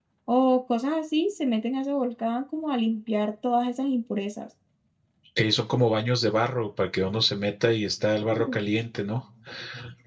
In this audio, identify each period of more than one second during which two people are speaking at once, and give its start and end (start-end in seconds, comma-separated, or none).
none